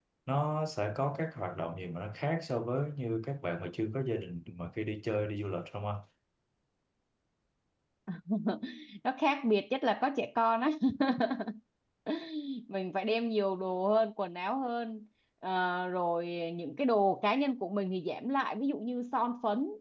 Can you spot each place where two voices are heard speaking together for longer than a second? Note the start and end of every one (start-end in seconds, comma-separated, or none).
none